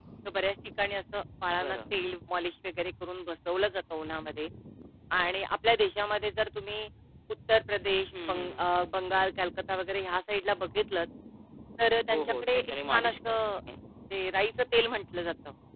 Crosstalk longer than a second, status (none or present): present